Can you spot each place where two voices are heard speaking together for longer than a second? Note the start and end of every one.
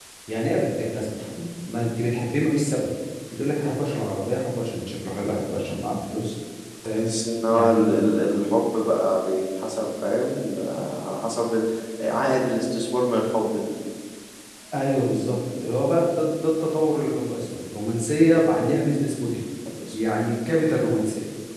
none

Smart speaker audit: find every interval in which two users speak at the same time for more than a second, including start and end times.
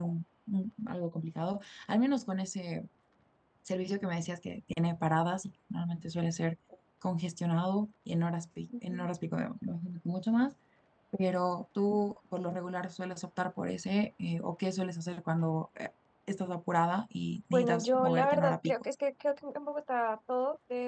17.5-18.8

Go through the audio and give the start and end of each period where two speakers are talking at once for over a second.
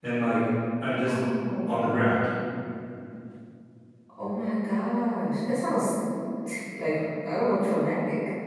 none

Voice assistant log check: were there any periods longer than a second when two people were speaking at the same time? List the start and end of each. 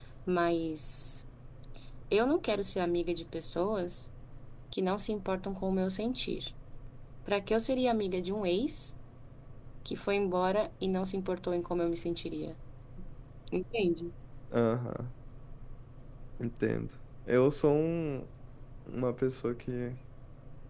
none

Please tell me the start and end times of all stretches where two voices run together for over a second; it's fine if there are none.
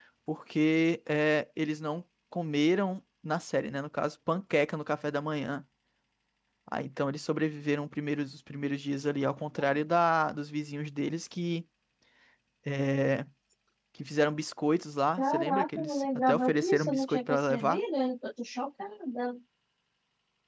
15.2-17.8

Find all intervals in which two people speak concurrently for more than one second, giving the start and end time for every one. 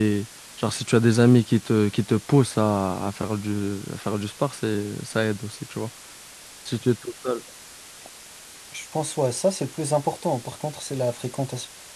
none

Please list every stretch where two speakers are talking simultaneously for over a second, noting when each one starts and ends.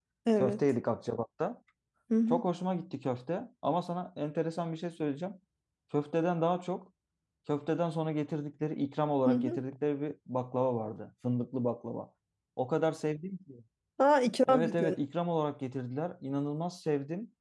none

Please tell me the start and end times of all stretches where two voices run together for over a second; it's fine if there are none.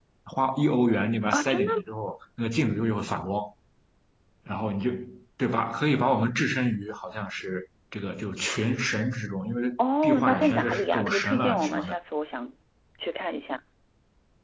10.0-11.9

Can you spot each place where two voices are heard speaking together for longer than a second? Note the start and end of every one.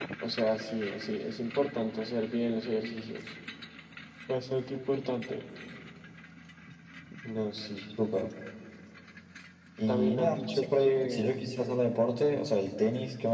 9.9-11.3

